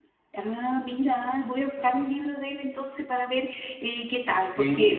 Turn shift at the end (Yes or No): Yes